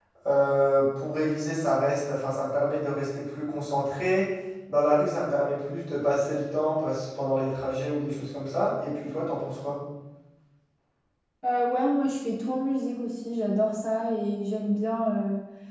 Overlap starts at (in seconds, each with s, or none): none